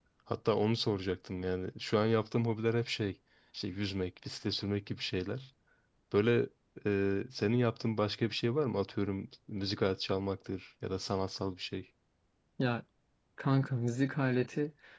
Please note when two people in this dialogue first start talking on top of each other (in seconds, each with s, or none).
none